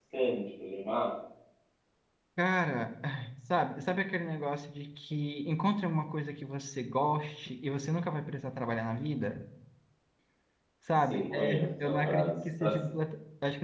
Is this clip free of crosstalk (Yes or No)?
No